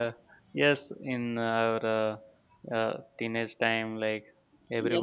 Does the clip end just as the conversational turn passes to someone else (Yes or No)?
Yes